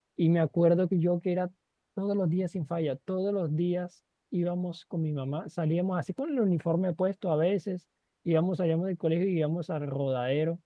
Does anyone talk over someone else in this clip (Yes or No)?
No